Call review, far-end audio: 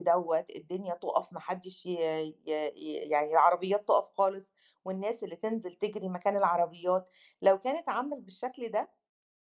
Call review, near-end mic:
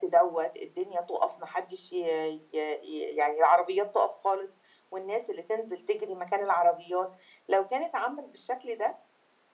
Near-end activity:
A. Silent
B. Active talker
A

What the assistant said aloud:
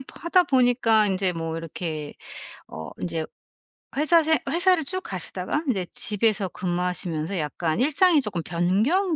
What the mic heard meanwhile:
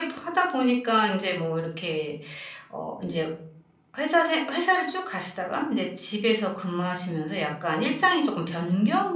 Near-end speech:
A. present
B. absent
B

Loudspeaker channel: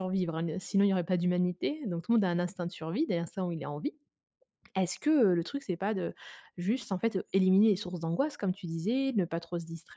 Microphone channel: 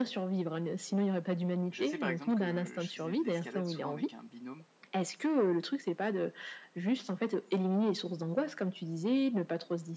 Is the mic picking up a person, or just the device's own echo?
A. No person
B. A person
B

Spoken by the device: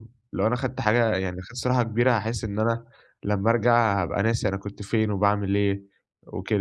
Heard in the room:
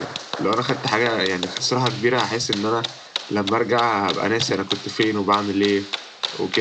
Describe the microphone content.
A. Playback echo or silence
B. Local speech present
A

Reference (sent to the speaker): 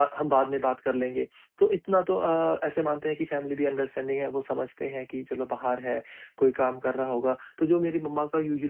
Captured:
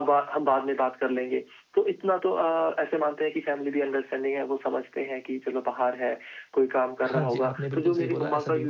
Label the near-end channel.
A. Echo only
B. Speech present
B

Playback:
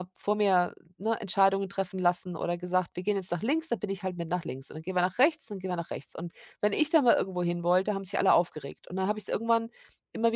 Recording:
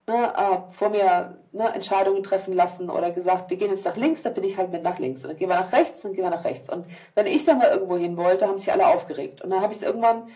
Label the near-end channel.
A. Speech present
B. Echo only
B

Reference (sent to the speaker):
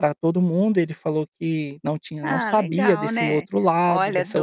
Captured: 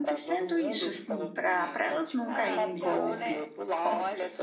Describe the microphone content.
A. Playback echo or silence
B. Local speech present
B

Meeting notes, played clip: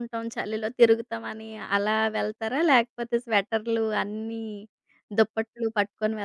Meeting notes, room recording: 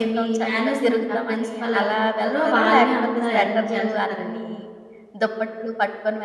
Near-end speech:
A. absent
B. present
B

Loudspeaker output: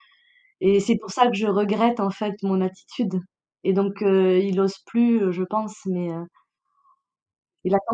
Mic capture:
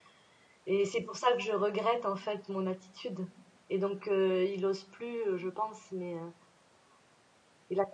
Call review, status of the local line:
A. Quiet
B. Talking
A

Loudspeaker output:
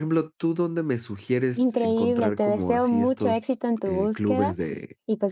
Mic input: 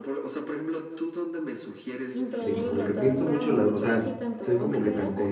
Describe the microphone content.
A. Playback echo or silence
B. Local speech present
B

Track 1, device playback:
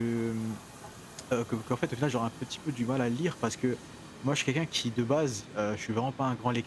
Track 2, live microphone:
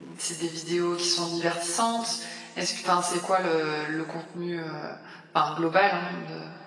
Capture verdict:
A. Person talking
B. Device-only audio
A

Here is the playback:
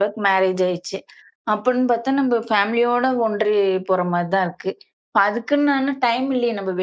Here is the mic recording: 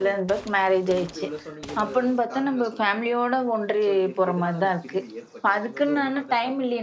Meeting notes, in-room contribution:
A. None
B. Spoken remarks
B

